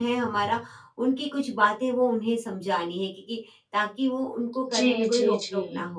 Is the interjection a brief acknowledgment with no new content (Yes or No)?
No